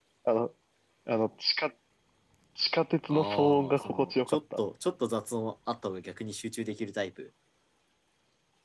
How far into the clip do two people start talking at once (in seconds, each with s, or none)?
3.1 s